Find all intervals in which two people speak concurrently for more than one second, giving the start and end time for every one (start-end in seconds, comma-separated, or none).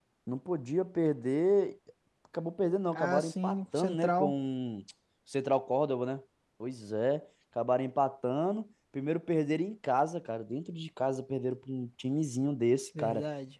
3.0-4.3